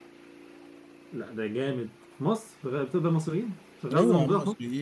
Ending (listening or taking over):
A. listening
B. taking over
B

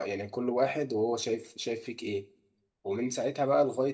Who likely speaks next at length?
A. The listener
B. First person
B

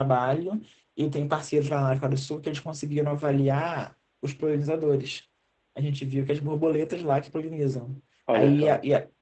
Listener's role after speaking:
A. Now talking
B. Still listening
B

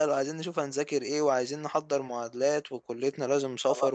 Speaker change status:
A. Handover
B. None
B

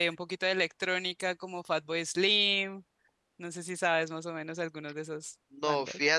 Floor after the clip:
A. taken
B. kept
A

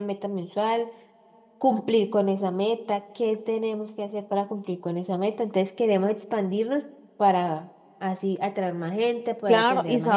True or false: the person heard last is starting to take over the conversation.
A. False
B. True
B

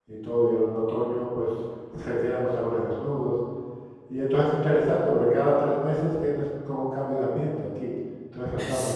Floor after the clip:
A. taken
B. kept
A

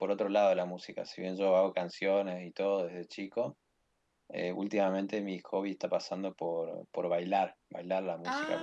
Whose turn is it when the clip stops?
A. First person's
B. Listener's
A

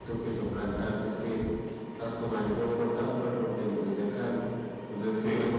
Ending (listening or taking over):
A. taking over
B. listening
B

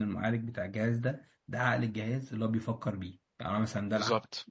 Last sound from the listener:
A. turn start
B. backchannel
B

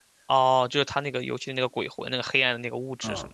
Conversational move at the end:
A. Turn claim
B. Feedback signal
A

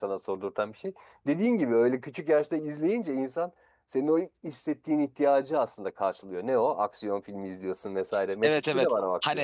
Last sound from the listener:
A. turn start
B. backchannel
A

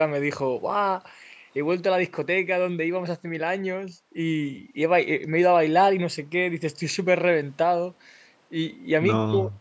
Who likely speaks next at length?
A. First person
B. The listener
A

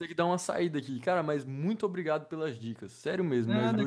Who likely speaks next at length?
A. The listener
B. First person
A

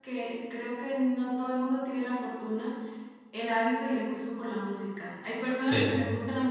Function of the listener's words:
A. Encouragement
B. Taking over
A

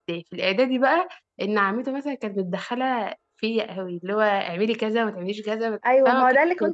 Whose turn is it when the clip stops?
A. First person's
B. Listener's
B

